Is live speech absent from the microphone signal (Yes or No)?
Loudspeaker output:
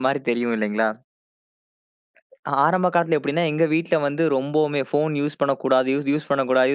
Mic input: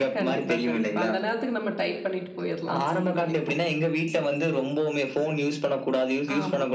No